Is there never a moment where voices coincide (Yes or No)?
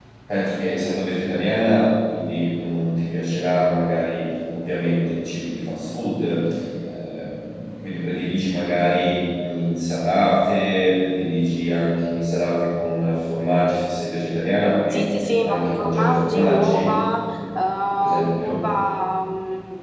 No